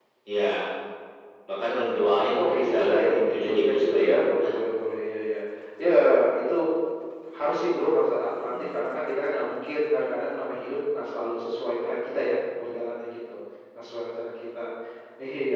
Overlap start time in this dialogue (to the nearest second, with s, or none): 2 s